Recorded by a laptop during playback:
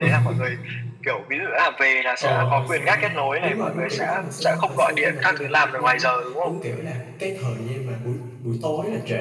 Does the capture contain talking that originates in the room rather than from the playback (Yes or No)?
Yes